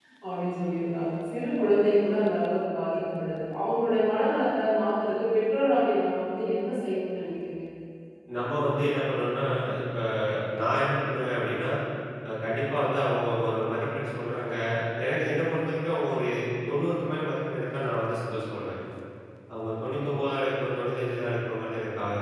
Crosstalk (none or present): none